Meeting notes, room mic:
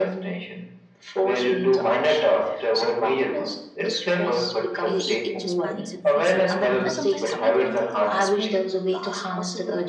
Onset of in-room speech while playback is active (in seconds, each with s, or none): 4.8 s